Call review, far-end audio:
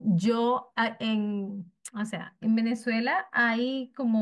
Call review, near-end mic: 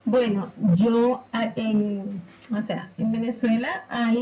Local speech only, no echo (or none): none